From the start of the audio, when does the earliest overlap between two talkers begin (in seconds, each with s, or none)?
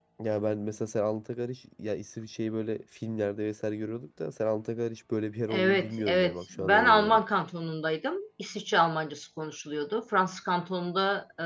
5.5 s